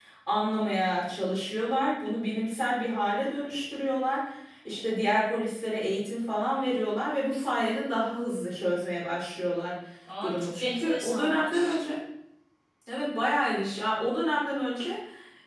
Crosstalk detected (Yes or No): Yes